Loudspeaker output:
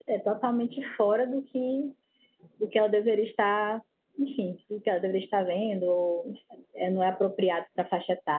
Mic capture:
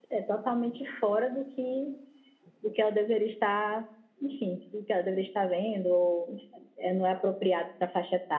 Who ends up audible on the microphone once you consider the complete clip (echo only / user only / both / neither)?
echo only